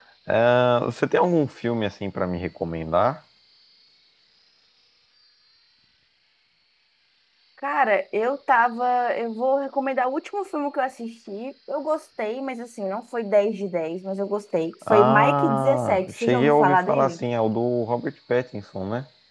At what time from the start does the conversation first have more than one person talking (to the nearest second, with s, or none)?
15 s